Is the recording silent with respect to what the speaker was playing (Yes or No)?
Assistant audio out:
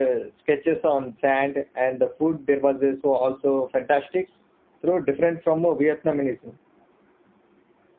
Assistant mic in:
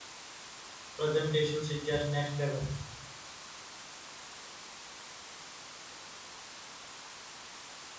Yes